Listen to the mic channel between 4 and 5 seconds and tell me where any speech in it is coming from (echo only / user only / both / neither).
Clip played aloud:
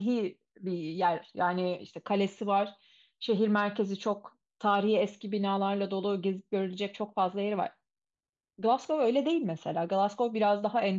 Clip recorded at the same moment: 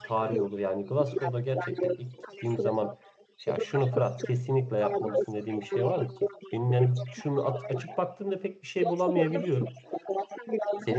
both